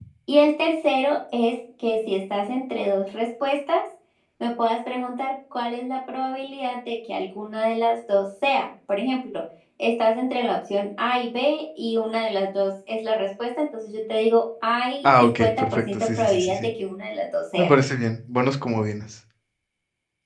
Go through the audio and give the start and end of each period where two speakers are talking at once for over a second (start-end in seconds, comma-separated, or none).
15.0-16.7